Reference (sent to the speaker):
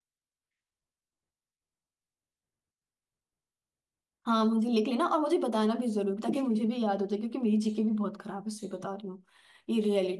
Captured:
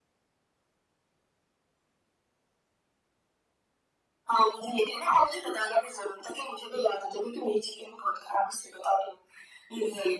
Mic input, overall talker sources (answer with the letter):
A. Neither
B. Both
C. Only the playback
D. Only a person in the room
C